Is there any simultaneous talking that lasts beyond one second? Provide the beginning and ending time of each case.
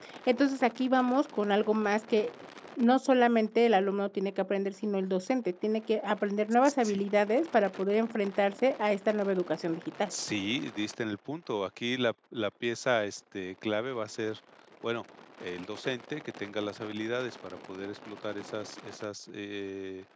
none

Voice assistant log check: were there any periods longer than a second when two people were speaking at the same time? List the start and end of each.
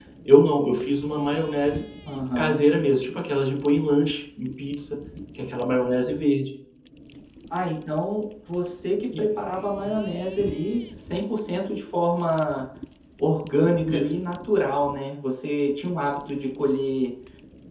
none

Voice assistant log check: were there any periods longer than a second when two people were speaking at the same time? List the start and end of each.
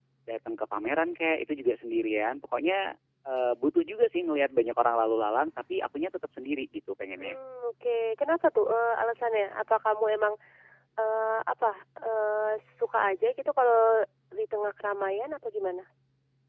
none

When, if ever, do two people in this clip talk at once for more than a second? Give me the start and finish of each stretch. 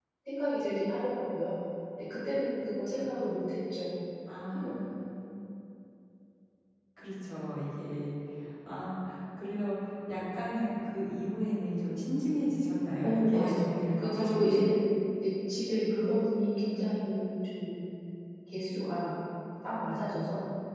13.0-14.6

